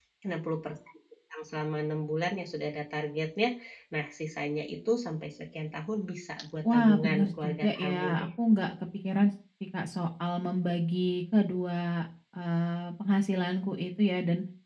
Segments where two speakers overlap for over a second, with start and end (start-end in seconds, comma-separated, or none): 6.7-8.3